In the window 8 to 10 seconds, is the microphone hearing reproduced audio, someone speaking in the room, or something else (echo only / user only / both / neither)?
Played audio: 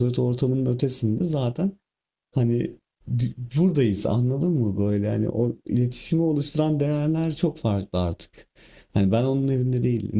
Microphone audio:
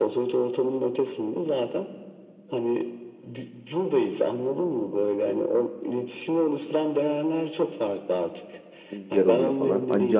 both